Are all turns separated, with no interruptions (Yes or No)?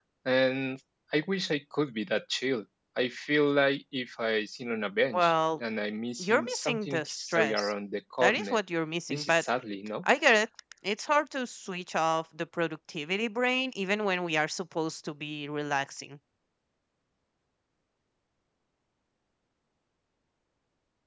No